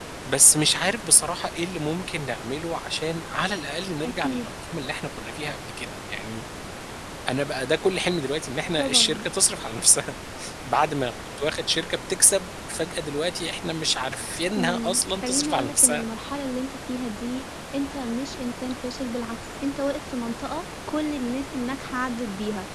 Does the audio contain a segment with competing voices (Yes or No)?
Yes